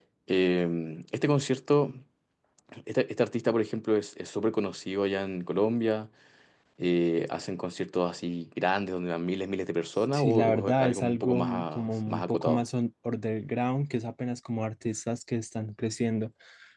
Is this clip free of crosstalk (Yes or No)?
No